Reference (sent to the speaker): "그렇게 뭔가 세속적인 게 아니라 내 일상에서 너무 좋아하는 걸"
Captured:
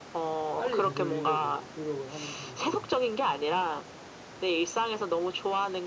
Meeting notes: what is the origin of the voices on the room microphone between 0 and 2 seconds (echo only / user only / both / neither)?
both